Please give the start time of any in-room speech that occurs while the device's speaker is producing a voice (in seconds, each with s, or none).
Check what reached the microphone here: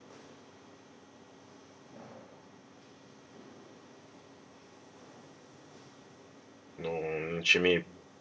6.8 s